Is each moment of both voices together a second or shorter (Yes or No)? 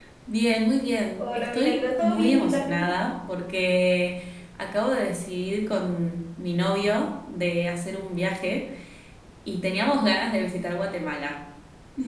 No